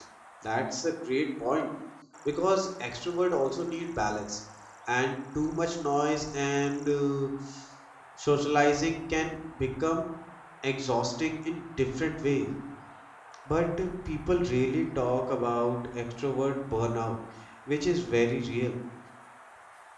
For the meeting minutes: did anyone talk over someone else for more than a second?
No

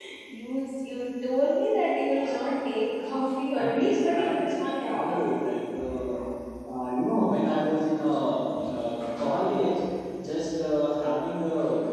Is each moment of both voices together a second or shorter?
No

